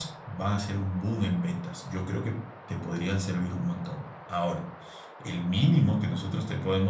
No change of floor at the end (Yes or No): Yes